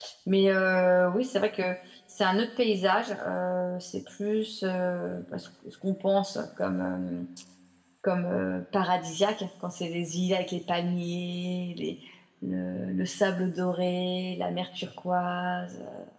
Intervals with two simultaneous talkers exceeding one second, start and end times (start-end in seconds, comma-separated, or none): none